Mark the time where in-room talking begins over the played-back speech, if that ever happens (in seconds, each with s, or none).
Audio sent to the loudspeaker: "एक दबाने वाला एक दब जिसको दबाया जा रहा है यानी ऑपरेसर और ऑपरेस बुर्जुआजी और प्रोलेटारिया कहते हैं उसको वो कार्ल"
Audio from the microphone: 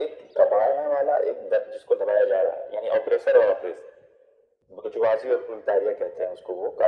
none